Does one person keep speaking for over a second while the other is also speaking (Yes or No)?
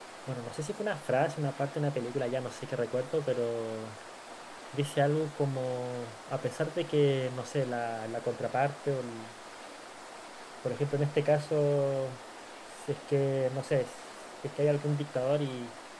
No